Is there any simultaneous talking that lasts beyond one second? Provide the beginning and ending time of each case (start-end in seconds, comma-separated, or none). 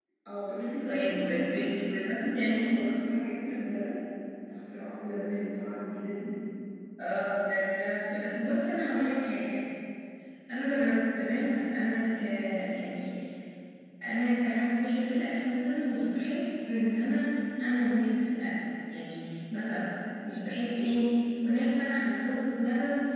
0.8-2.8